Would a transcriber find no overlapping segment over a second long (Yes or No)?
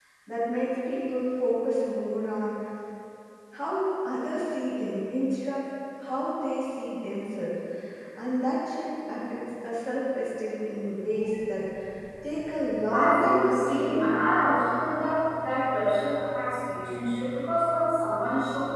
No